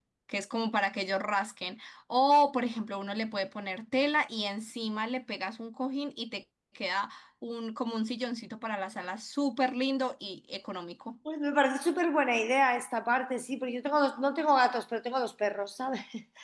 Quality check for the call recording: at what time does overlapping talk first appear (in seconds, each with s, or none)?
none